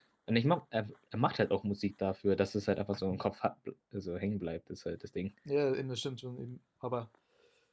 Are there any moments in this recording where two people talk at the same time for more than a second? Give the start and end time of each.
none

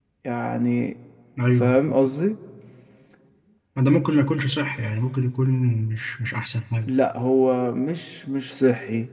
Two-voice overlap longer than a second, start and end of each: none

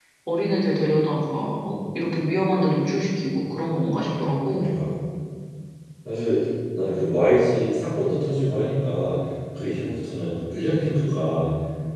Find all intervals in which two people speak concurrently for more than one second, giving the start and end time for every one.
none

